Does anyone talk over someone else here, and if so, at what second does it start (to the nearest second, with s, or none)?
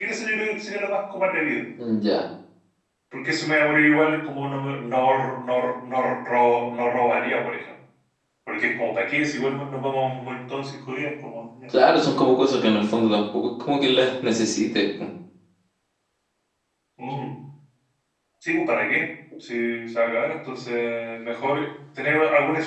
none